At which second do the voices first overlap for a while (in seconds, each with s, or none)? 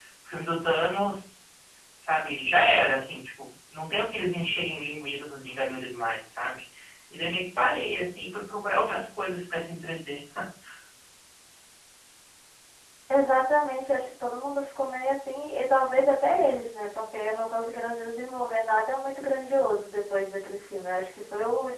none